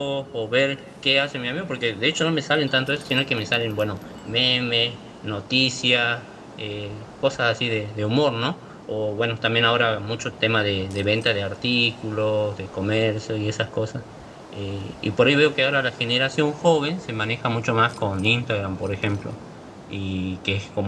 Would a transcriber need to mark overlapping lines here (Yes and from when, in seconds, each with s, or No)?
No